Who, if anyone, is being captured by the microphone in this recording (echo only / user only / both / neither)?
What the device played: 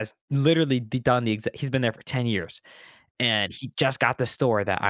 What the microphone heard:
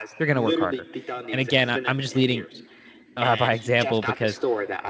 both